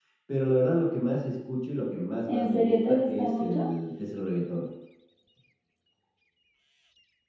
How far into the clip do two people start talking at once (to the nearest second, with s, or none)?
2 s